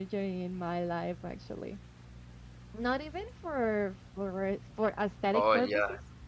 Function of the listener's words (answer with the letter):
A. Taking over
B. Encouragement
B